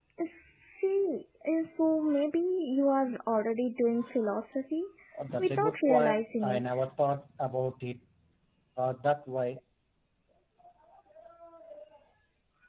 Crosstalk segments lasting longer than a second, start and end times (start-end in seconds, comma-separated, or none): 5.4-6.6